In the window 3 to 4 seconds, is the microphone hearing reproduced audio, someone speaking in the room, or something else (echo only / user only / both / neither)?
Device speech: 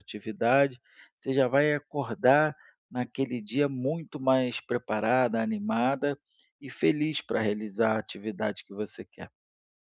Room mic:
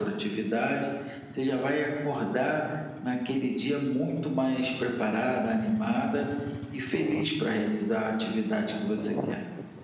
echo only